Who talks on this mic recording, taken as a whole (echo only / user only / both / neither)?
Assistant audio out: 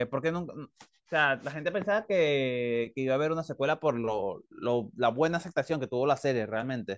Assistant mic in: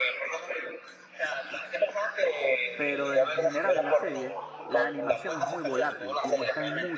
both